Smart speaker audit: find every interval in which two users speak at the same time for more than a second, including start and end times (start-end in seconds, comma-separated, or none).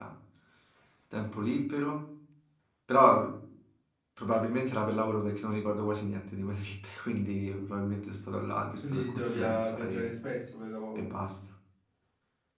8.8-10.1